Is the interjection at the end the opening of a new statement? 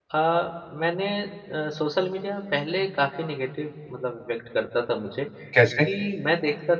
No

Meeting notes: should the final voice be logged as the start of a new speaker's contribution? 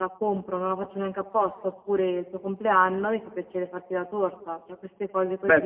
Yes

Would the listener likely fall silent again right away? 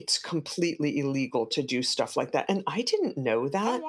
Yes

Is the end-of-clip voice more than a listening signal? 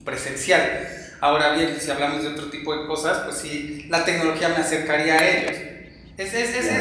No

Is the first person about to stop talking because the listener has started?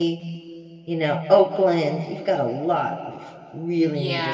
Yes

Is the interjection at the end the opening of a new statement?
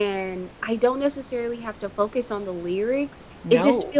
No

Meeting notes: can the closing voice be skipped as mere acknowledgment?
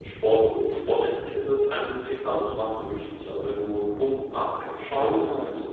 Yes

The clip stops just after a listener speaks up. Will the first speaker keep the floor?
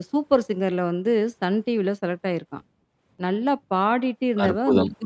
Yes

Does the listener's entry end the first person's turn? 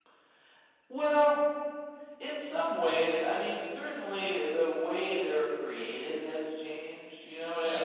Yes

